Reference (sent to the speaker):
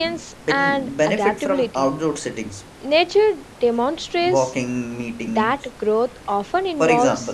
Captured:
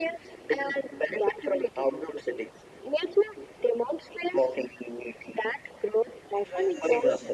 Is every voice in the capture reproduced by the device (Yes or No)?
No